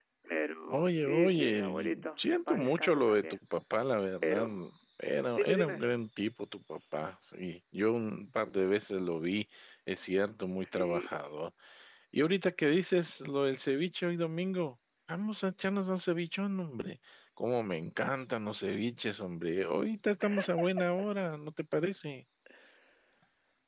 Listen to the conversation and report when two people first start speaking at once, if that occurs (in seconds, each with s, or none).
0.7 s